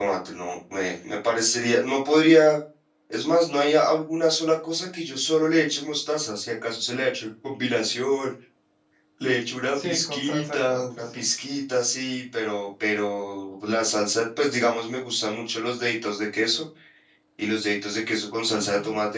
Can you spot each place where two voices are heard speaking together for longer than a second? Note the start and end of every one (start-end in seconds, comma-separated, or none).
9.7-11.2